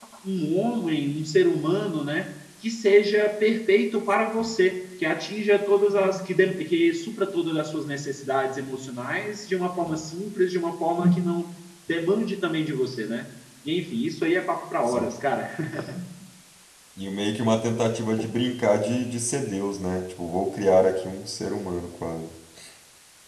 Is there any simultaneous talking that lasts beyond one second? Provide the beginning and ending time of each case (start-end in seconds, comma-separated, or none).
none